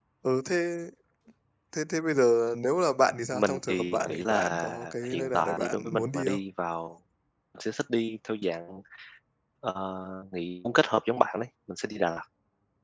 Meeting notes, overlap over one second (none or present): present